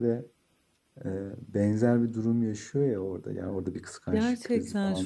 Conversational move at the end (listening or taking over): taking over